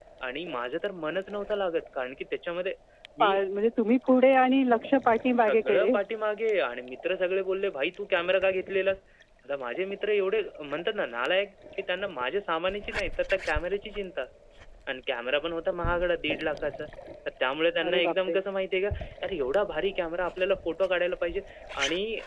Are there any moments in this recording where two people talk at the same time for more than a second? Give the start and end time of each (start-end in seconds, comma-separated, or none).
none